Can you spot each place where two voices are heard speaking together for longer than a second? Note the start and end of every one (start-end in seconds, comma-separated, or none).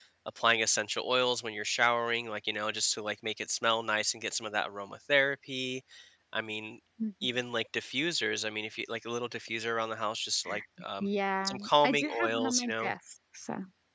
11.4-12.9